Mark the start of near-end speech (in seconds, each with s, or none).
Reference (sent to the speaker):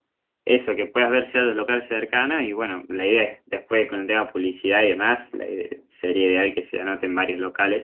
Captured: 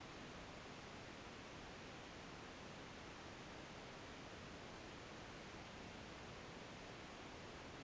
none